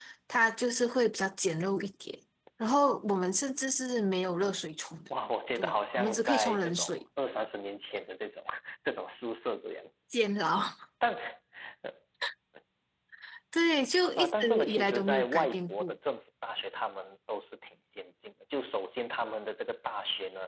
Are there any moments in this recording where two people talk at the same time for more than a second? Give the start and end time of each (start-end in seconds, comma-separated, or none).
5.5-7.0, 14.2-15.9